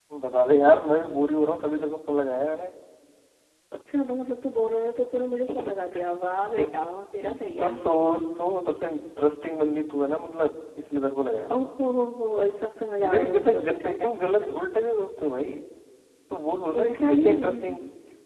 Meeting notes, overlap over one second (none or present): present